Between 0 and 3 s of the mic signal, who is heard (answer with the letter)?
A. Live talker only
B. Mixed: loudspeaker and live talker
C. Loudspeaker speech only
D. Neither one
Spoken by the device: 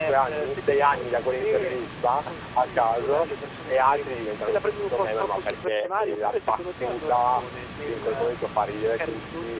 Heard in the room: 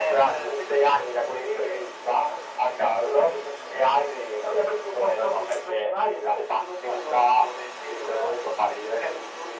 C